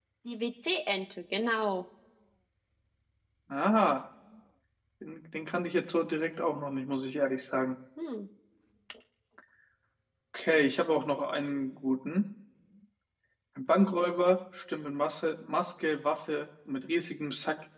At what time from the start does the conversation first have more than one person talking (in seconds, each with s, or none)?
none